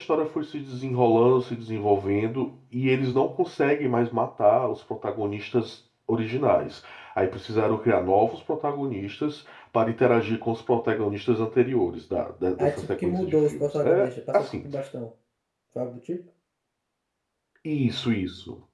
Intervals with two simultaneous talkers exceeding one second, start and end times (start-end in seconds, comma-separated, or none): 12.6-14.7